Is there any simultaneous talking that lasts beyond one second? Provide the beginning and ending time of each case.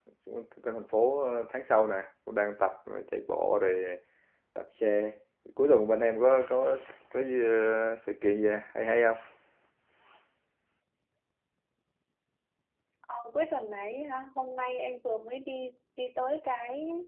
none

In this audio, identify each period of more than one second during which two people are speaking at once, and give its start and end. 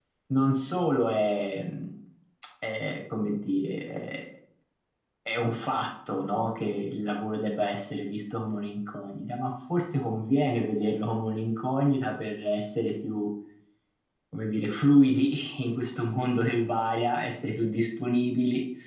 none

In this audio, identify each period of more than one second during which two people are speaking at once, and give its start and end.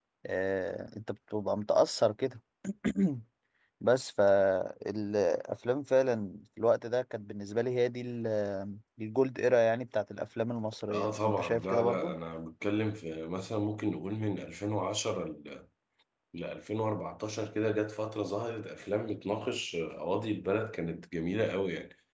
10.9-12.2

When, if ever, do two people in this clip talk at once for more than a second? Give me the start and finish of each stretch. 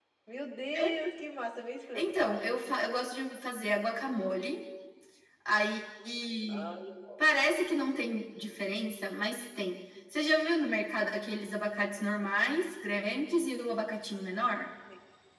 none

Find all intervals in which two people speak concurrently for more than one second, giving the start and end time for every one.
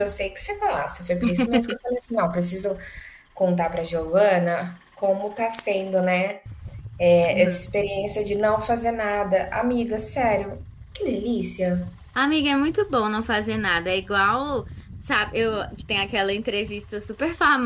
none

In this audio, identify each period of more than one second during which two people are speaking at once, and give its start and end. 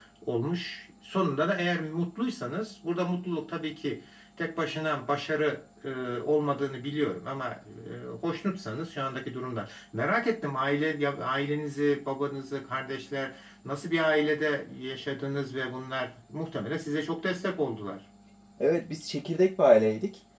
none

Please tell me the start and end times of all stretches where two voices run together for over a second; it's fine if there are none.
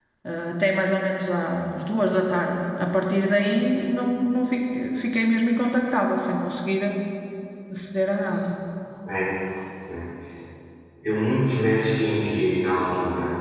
none

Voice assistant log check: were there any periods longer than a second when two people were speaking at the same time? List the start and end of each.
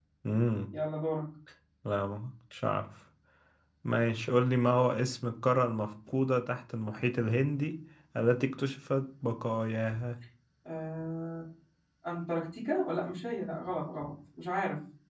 none

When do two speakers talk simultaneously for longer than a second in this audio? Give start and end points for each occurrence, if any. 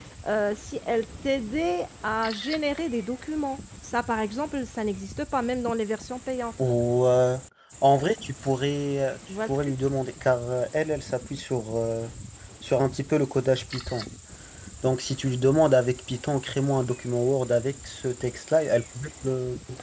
none

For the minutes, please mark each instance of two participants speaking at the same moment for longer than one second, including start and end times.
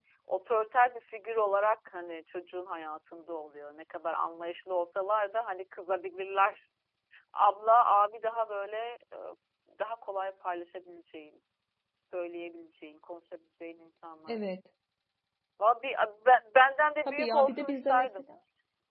17.1-18.3

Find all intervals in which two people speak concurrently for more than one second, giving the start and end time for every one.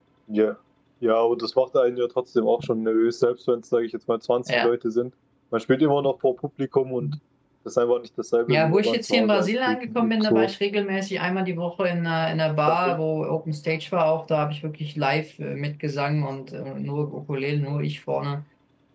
8.5-10.5

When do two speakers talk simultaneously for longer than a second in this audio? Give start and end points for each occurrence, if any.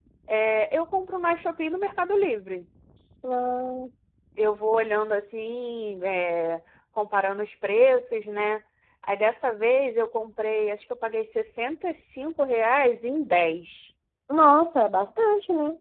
none

